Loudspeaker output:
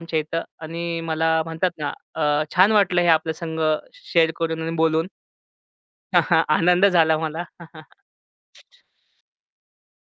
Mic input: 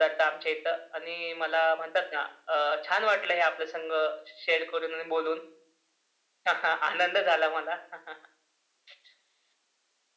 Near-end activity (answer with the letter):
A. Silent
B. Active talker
A